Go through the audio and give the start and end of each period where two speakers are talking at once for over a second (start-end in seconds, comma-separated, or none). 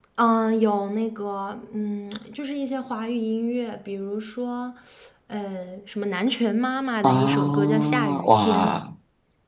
7.0-8.7